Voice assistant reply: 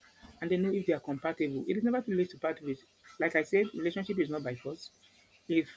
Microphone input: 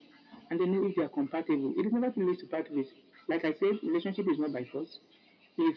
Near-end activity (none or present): none